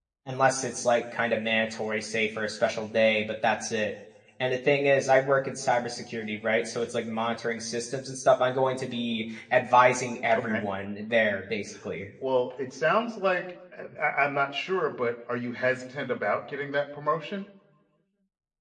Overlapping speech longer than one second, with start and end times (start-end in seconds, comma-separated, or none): none